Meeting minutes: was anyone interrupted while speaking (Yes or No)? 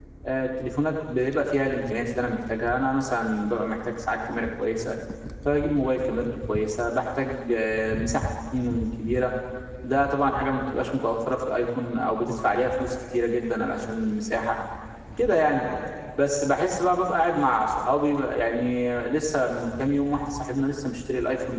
No